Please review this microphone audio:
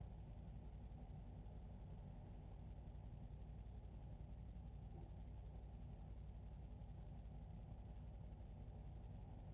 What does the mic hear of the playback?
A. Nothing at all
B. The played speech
A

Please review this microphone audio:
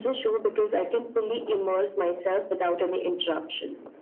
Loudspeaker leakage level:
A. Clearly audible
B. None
A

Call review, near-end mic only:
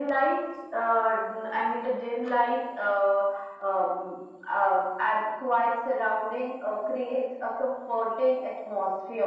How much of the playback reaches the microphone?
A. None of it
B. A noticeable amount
B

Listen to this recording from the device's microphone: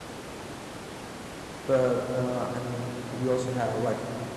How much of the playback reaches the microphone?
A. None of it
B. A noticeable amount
A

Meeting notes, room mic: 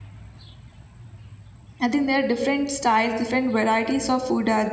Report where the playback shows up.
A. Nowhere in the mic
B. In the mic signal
A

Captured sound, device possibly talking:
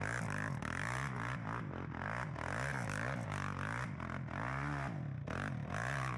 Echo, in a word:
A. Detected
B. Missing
B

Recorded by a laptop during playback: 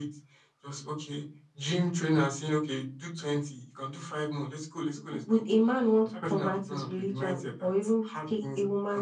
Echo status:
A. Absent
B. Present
B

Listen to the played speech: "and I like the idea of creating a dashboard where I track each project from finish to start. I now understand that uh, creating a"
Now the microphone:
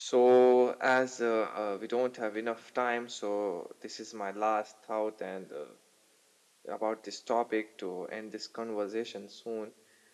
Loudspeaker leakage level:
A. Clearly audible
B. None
B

